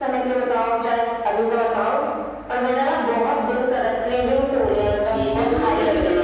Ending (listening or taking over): taking over